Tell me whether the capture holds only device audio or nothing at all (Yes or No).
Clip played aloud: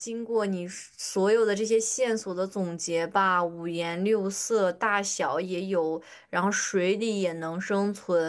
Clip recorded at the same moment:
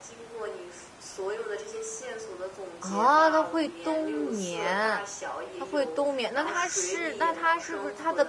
No